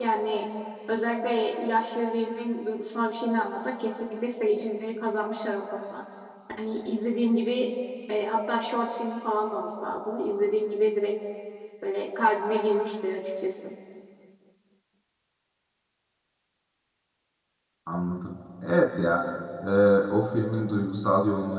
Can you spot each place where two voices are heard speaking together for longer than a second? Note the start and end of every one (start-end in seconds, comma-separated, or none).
none